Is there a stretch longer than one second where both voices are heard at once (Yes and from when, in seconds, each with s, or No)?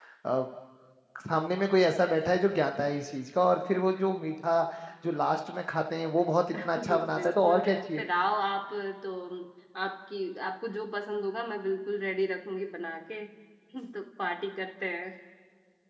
Yes, from 6.5 s